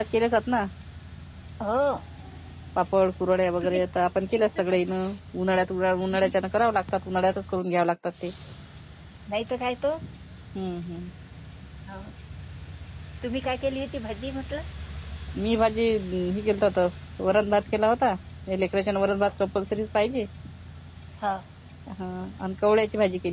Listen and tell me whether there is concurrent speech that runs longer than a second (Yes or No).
No